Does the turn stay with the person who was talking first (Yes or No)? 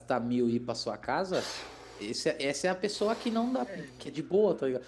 Yes